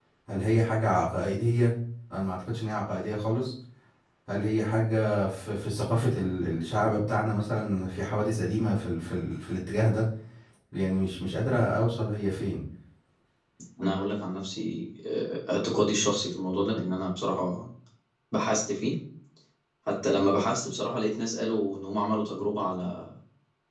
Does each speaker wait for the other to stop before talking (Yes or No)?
Yes